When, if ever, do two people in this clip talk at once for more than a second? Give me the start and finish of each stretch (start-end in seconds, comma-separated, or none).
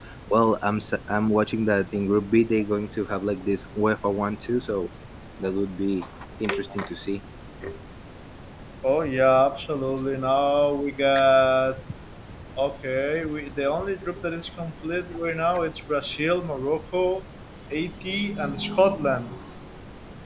none